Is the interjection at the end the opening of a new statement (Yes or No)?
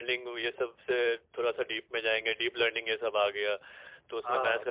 No